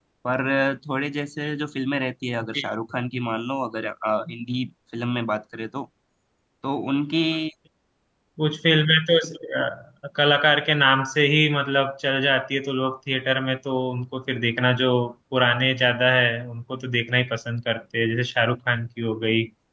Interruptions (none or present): none